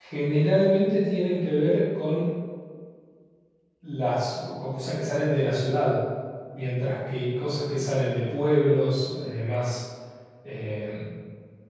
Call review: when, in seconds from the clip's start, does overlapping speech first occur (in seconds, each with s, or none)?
none